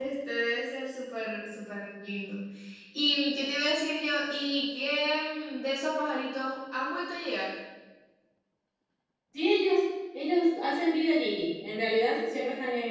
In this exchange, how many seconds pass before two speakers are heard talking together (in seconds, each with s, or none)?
none